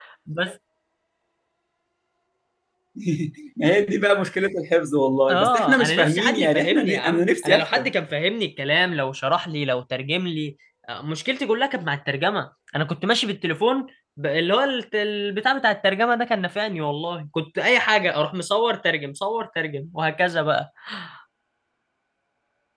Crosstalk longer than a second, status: present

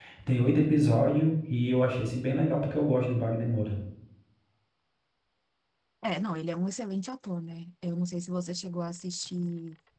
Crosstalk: none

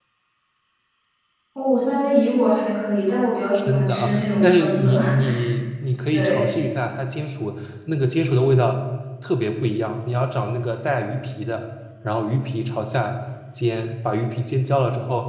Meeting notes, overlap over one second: present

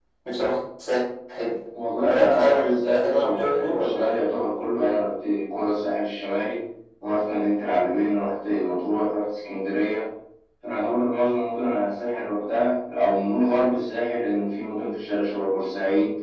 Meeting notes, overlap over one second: present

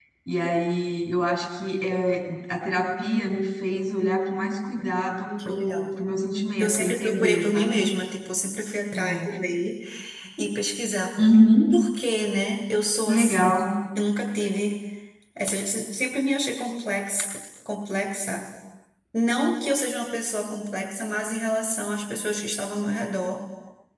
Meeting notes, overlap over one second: present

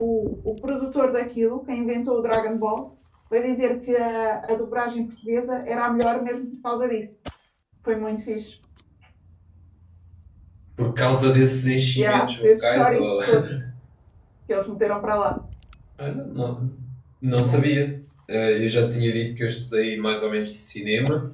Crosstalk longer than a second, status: present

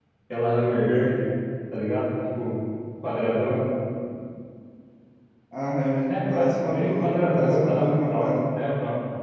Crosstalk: present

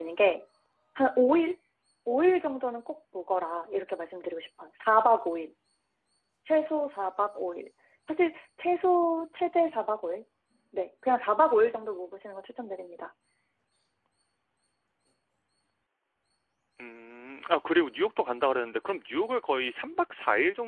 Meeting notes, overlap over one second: none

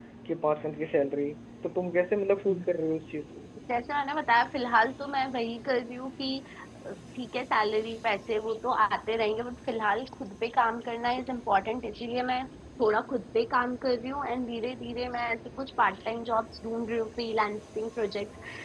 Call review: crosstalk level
none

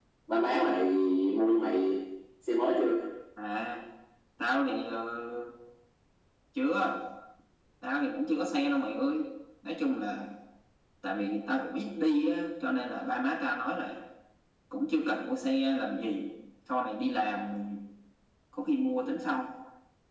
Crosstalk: none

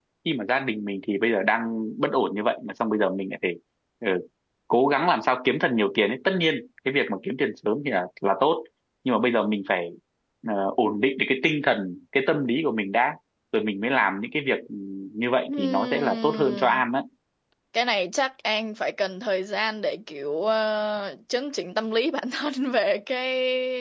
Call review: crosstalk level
present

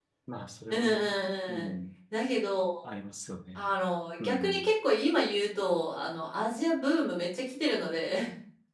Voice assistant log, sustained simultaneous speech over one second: none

